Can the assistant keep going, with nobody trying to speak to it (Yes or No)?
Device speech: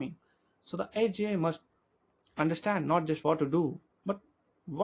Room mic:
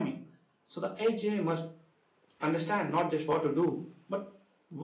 Yes